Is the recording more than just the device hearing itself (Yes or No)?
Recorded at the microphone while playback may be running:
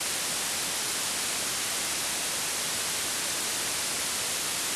No